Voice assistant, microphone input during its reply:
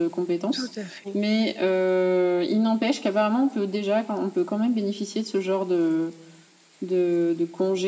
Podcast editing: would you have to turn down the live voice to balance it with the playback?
No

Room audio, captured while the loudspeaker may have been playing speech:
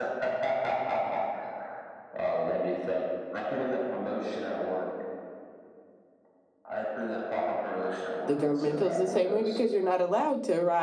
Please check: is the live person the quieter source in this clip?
No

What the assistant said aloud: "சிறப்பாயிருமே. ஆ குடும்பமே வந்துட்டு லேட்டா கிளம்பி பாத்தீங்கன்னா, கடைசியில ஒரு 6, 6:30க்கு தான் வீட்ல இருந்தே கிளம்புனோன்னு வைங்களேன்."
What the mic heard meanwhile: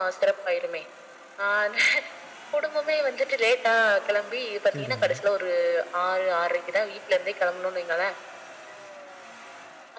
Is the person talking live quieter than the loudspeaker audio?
Yes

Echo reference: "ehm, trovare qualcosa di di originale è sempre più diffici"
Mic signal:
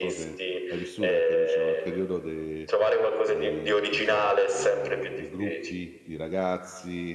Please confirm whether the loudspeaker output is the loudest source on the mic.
Yes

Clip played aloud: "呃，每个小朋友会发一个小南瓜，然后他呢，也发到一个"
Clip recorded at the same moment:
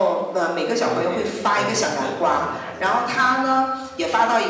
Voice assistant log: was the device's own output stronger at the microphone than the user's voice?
Yes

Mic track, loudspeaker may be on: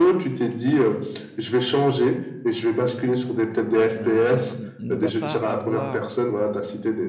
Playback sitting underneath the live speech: No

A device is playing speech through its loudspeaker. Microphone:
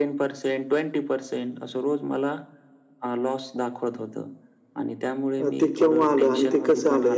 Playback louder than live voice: No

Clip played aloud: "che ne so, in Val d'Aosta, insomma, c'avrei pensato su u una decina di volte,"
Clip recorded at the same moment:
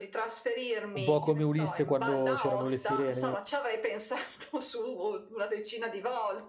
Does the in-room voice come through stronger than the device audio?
Yes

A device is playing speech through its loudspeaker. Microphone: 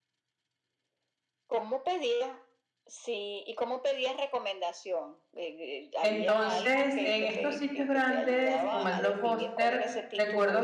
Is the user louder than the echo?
Yes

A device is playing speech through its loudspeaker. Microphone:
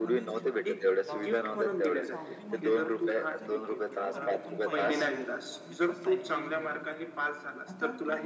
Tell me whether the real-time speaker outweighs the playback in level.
No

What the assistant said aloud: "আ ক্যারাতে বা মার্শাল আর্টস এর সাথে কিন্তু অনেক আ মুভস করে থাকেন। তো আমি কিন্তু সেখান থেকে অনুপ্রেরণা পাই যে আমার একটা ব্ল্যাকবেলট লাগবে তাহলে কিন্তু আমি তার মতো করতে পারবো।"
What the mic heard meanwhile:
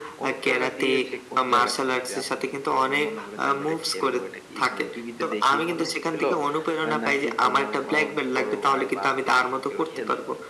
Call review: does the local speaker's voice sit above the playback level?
No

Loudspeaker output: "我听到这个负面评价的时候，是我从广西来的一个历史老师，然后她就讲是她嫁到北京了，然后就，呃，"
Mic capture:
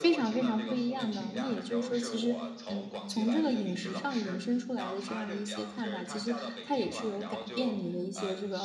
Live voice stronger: Yes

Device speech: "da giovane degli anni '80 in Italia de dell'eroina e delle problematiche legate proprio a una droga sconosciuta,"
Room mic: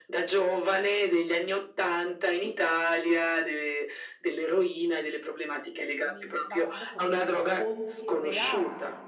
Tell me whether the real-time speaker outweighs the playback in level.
No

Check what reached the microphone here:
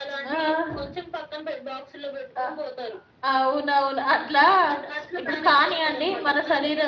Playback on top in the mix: No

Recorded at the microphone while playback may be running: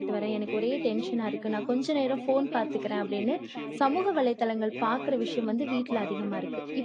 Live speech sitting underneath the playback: No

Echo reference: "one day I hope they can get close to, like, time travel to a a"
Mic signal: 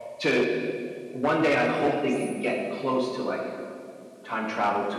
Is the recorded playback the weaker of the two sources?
No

